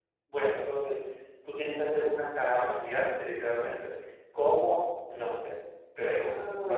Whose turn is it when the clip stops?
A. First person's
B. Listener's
B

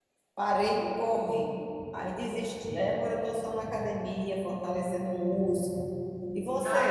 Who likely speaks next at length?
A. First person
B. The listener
B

